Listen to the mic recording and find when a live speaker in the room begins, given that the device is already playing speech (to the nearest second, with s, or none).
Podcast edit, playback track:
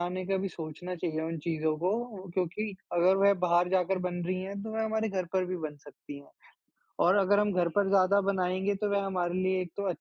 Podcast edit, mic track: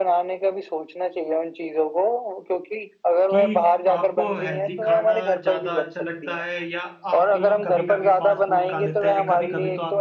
3 s